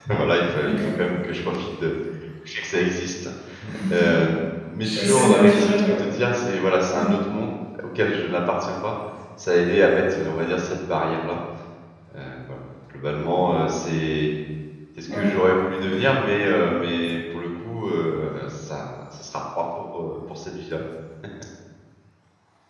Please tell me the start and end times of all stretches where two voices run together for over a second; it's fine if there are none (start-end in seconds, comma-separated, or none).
4.8-6.0